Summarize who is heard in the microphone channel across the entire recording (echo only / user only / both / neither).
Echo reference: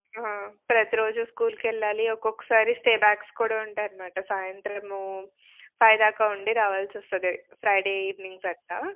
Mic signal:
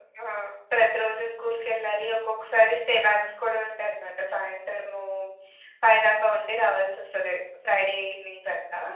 echo only